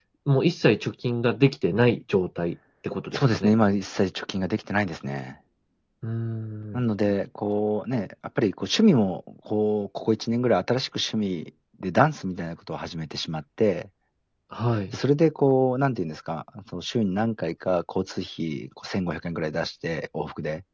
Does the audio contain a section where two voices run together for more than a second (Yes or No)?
No